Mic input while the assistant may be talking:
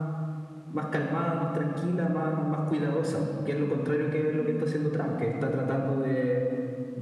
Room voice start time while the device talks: 4.4 s

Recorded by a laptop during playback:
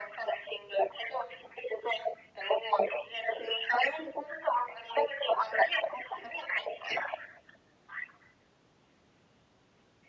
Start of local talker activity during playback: none

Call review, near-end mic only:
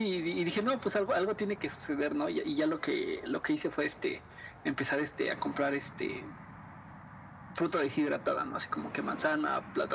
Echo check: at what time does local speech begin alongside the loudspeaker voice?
none

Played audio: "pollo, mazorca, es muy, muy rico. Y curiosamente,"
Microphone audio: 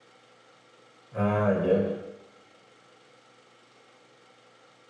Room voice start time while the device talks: 1.1 s

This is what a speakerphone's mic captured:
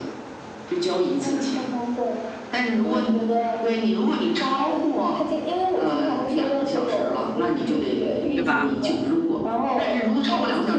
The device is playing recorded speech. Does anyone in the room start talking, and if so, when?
8.3 s

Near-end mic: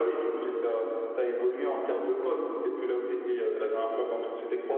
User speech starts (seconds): none

